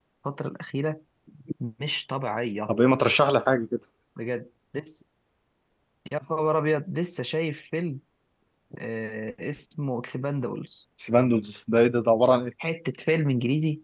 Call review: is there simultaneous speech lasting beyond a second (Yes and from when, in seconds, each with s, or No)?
No